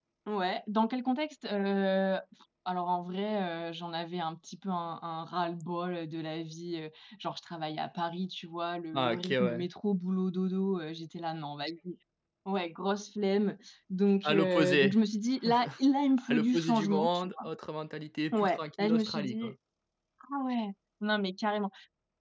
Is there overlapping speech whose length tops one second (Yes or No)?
Yes